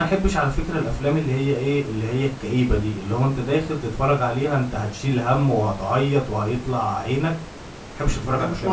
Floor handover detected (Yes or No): Yes